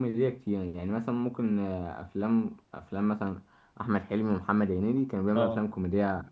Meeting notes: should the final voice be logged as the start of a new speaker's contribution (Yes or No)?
No